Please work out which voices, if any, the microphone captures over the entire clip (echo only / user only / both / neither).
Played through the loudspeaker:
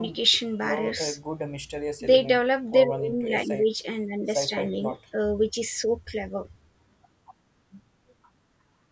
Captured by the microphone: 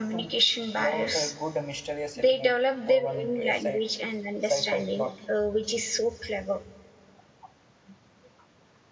echo only